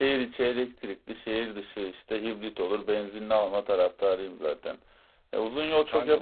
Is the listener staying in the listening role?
Yes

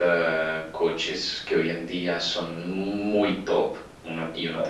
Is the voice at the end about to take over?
No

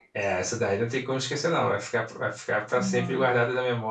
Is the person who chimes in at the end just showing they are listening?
Yes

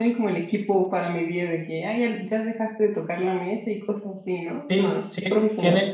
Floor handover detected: Yes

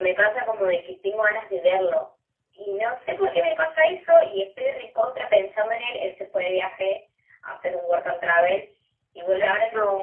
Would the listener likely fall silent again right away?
Yes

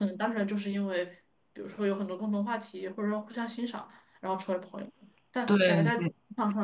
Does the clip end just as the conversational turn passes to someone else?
No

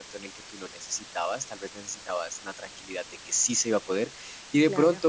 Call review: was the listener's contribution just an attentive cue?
Yes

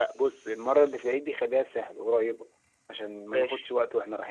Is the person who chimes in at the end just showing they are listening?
Yes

